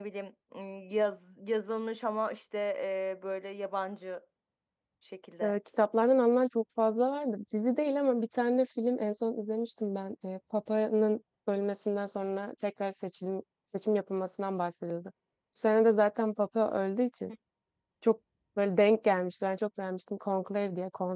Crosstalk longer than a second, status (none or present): none